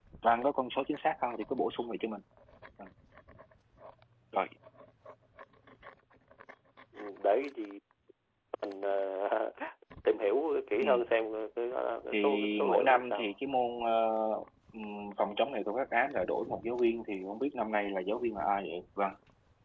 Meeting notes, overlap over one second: present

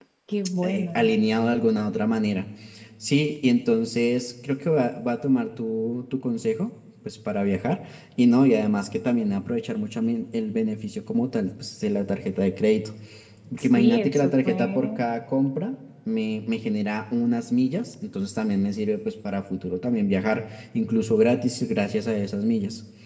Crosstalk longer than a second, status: present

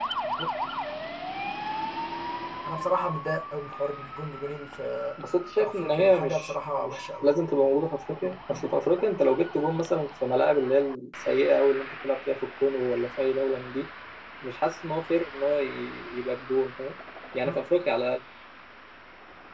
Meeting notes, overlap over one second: present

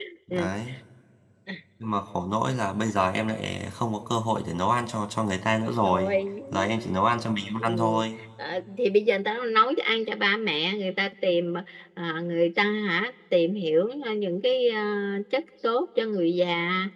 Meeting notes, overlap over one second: none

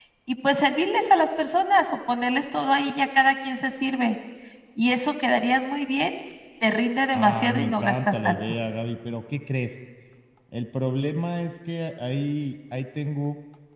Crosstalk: present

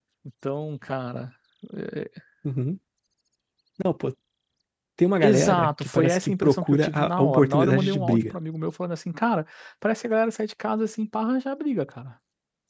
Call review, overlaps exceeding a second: present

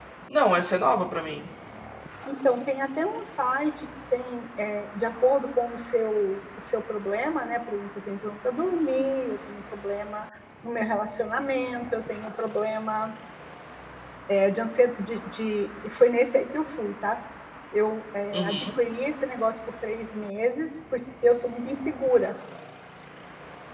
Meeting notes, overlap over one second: none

